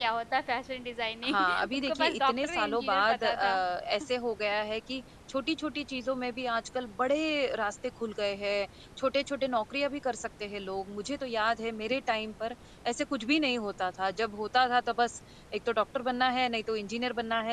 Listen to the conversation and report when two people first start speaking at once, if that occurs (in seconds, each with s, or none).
1.2 s